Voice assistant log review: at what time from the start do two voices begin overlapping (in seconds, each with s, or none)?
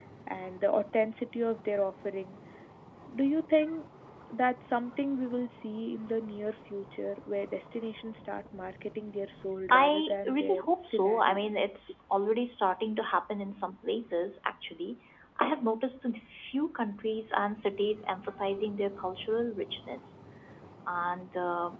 9.7 s